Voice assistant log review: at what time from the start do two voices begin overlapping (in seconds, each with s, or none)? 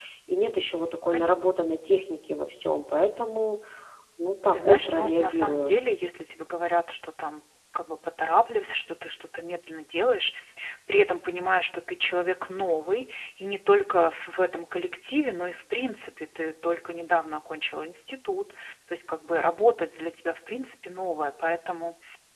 4.5 s